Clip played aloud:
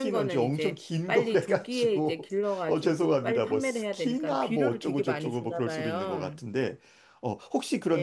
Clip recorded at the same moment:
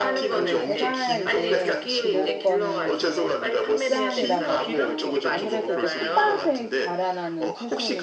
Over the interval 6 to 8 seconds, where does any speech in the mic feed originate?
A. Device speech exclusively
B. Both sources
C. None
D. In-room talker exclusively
B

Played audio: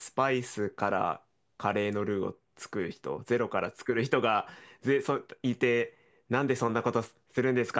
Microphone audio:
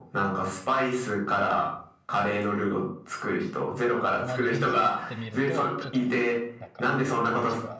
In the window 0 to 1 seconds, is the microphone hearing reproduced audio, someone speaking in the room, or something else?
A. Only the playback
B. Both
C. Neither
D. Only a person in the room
A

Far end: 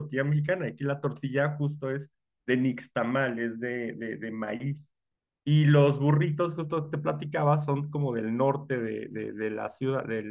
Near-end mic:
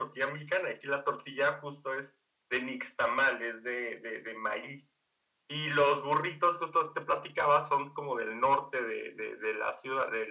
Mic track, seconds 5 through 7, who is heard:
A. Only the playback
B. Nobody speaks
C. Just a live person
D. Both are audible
A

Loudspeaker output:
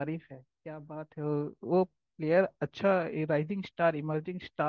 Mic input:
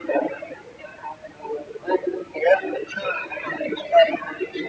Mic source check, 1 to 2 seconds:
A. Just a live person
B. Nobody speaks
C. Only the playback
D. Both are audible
C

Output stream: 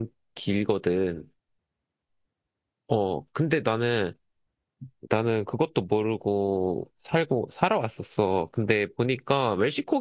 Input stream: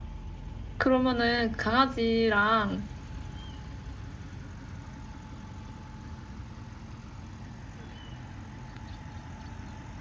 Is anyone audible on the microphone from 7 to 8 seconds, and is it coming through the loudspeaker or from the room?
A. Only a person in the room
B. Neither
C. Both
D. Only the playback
B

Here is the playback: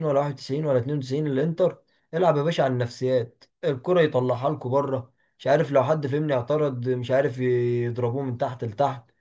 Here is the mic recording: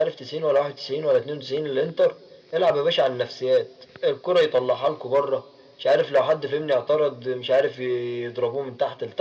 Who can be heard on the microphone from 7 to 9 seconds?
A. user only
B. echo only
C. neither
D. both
B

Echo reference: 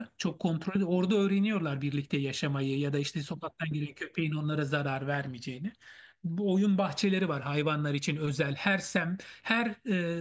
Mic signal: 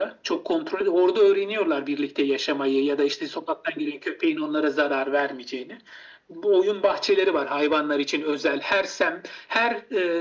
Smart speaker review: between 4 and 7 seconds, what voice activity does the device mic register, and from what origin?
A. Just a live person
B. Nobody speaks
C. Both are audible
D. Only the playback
D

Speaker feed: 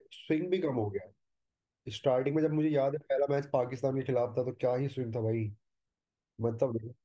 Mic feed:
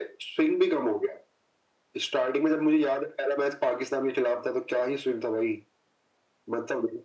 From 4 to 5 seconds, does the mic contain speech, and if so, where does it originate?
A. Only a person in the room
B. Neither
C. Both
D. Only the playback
D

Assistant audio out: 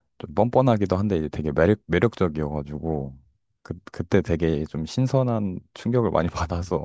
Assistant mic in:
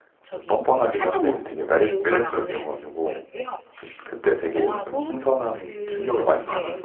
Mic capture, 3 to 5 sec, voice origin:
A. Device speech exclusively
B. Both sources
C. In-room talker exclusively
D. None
B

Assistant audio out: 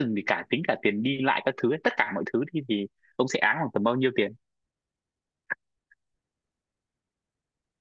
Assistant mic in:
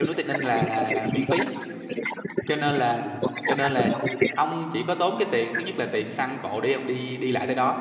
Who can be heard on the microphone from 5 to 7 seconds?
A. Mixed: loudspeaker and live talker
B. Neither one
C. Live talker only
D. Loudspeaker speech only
C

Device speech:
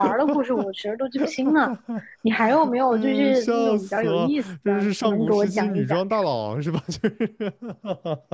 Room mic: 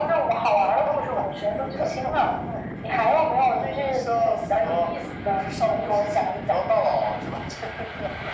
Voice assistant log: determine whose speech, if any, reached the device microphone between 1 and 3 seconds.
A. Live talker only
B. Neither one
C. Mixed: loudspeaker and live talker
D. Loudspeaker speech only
D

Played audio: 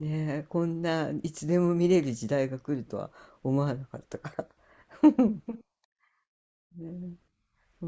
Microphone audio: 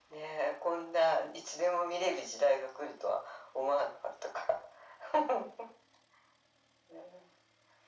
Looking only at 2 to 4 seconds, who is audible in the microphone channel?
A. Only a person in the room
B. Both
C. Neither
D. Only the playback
D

